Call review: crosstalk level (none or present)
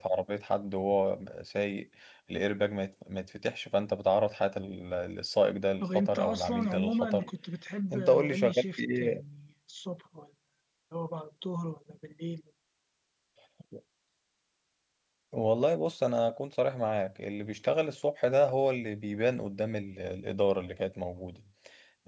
present